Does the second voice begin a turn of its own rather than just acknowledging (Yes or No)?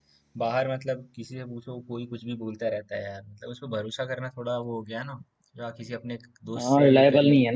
Yes